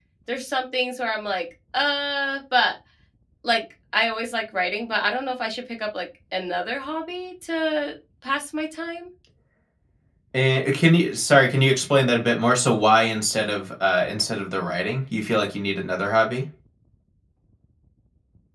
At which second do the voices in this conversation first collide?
none

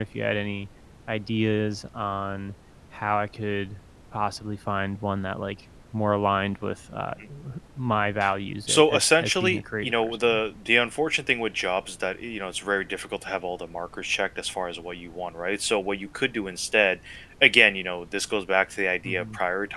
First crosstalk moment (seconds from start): 8.7 s

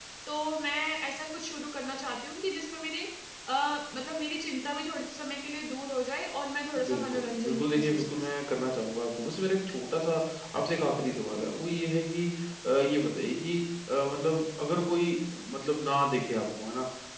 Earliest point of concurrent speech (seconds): 6.8 s

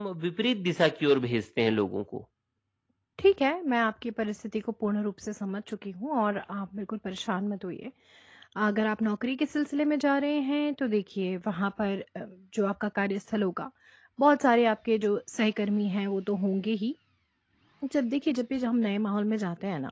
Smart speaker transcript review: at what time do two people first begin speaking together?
none

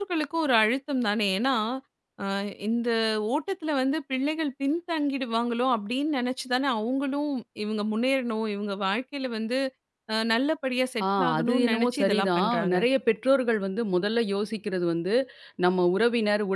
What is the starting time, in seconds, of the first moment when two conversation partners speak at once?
11.0 s

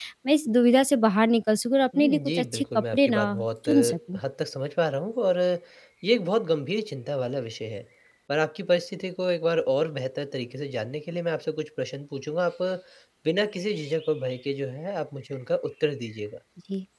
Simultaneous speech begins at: 2.0 s

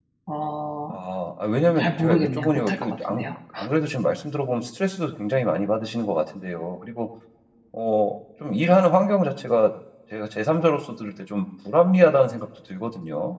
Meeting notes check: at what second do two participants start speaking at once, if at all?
1.8 s

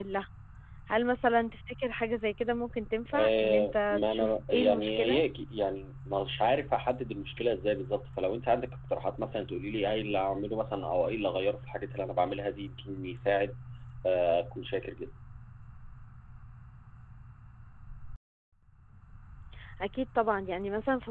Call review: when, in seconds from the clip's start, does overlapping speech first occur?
3.1 s

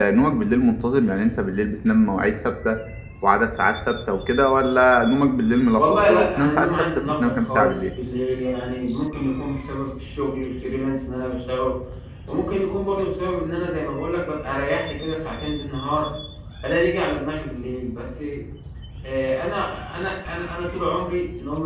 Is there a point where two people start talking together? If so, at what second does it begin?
5.8 s

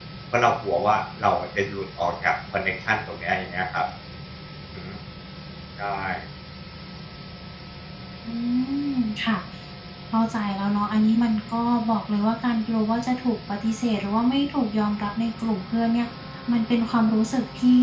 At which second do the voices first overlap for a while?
none

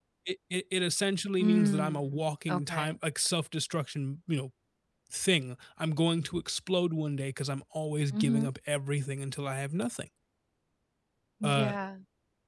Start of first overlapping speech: 1.4 s

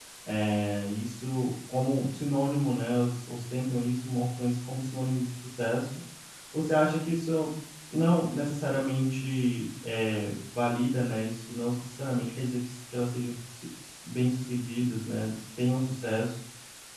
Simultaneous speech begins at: none

